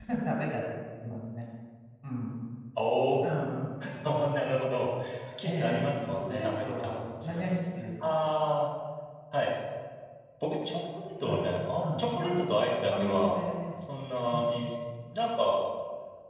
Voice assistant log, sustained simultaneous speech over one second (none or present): present